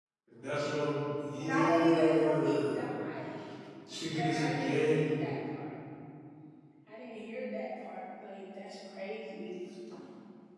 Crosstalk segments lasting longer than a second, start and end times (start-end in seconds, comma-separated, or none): 1.4-2.8, 4.1-5.3